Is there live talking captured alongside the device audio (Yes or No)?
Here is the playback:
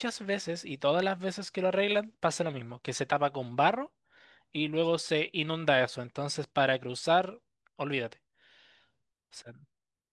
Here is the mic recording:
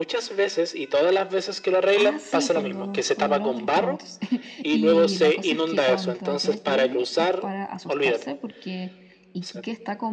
Yes